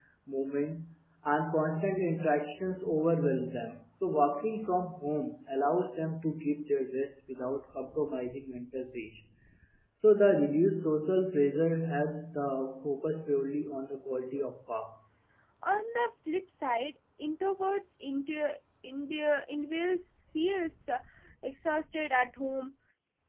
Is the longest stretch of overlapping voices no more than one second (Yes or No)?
Yes